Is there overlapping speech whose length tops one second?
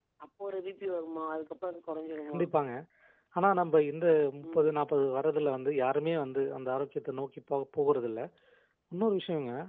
No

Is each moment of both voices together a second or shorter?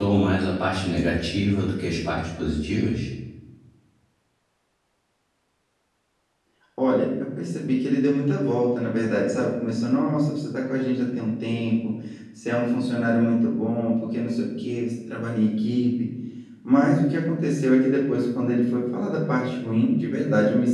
Yes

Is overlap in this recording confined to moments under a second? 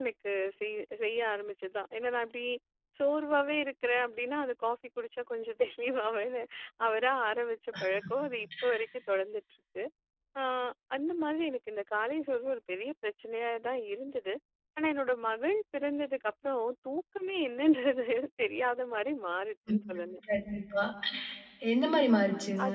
Yes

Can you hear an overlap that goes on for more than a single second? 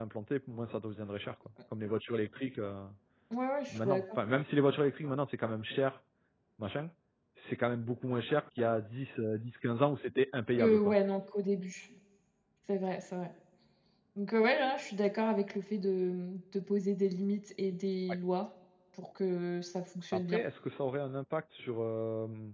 No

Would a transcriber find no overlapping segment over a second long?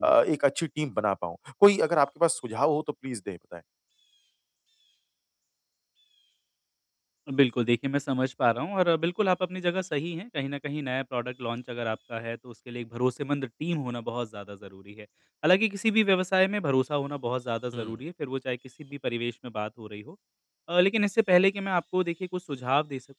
Yes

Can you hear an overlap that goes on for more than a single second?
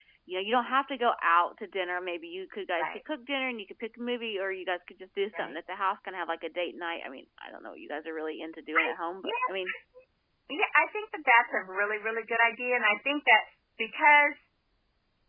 No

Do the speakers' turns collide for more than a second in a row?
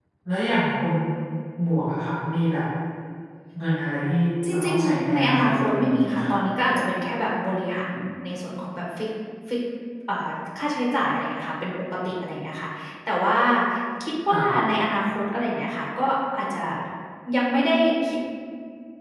Yes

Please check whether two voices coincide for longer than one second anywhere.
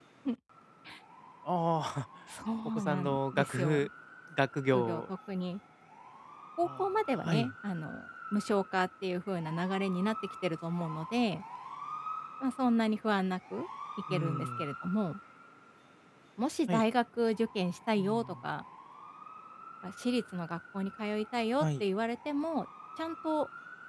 Yes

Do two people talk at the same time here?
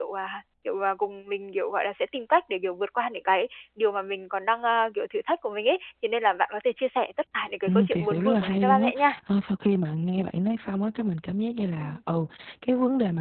Yes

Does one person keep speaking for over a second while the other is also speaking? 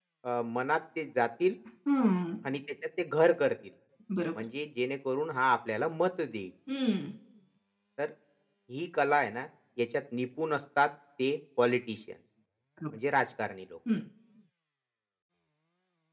No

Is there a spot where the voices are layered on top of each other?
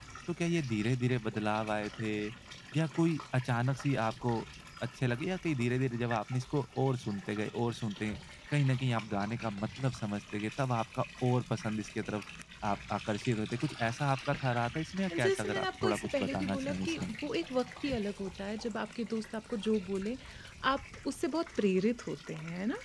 Yes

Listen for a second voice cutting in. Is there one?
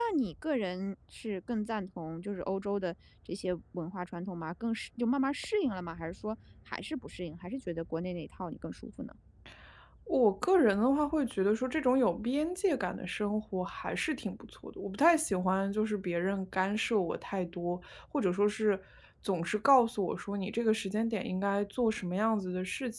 No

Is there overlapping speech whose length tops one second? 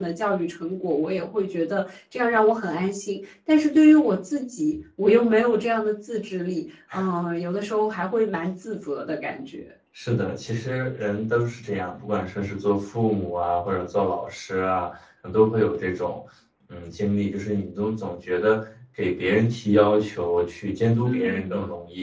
No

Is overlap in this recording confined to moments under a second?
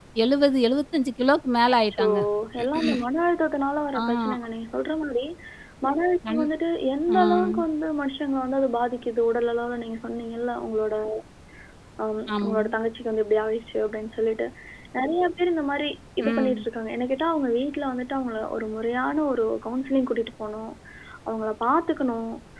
Yes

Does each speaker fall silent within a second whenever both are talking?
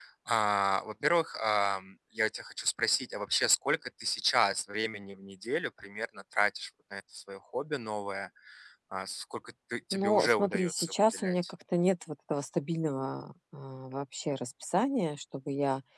No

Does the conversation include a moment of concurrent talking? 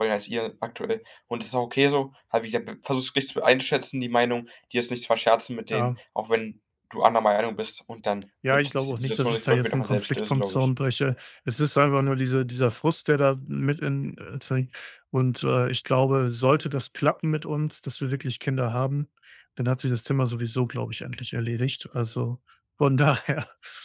Yes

